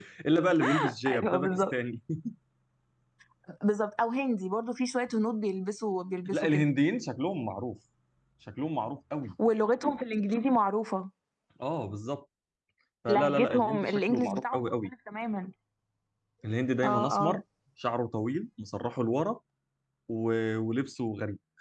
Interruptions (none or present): present